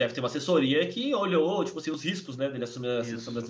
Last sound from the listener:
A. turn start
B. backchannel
A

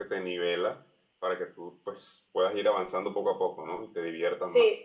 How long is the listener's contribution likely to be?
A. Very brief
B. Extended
B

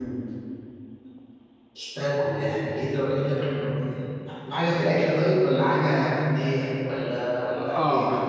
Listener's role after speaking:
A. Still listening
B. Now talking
B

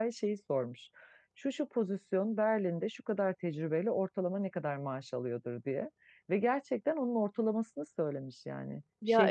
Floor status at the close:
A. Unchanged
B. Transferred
B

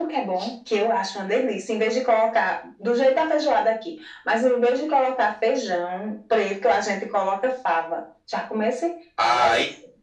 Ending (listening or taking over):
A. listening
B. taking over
B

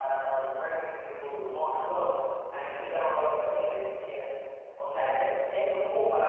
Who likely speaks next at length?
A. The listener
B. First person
B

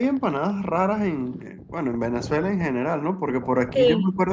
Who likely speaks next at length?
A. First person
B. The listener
A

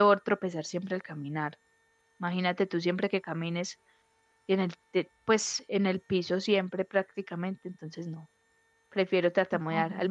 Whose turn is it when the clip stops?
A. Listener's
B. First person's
B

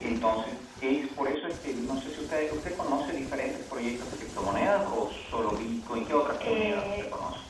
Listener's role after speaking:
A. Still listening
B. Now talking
B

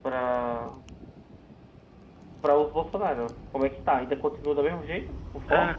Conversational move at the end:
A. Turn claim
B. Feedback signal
A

